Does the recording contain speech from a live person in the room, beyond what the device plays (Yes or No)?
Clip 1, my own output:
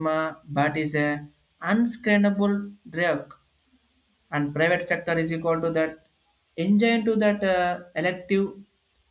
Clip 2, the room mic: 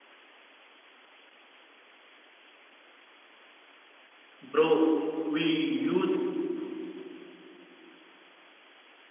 Yes